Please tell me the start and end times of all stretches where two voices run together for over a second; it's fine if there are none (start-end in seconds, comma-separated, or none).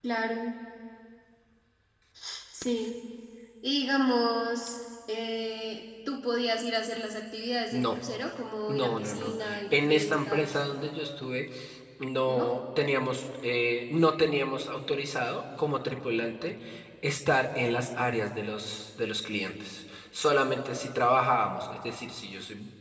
8.7-10.6